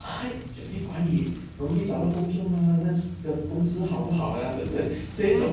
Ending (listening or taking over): taking over